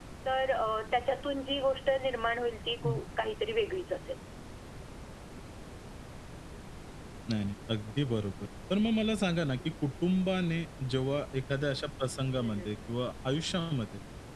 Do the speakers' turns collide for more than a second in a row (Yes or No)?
No